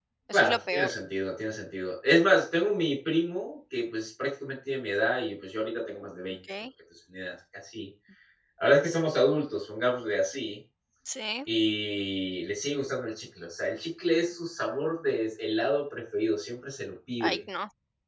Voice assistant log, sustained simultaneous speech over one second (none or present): none